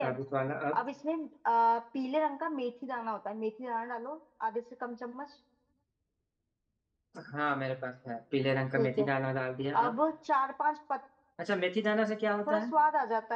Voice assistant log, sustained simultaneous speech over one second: none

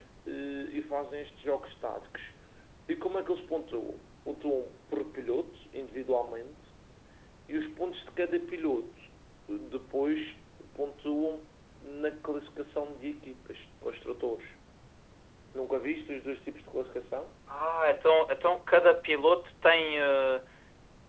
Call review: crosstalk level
none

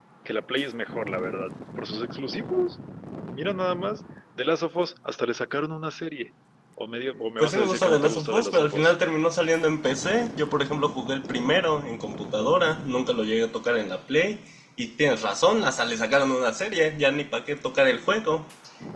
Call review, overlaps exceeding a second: present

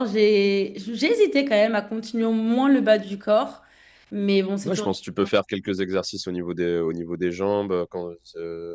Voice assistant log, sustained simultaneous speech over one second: none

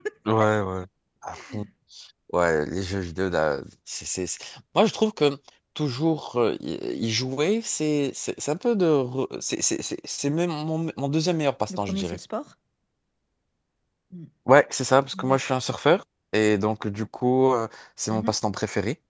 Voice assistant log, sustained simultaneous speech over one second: none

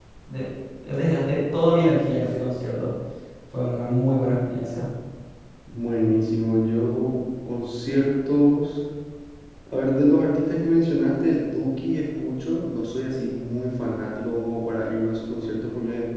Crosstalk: none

